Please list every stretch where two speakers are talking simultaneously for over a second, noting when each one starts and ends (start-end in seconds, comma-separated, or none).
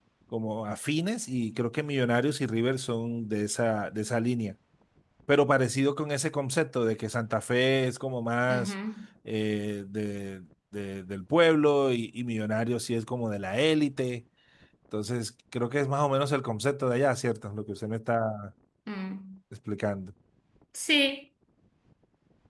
none